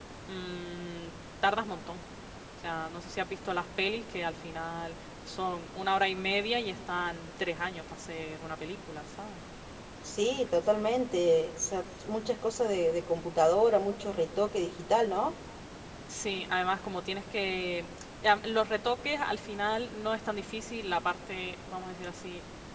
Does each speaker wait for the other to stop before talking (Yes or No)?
Yes